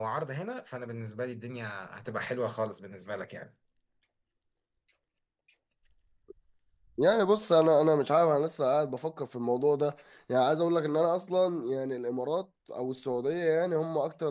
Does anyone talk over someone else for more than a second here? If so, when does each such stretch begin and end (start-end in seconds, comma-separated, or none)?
none